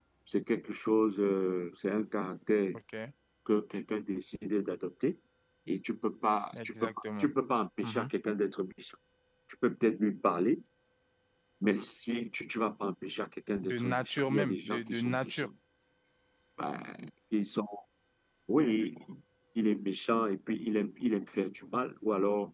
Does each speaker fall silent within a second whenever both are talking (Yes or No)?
No